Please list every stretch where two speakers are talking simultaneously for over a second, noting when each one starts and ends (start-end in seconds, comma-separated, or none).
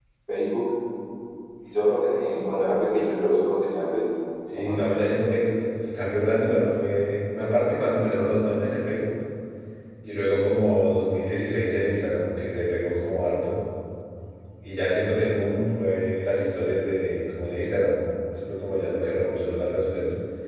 none